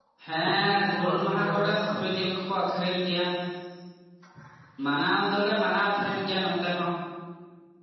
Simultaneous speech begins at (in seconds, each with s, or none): 0.6 s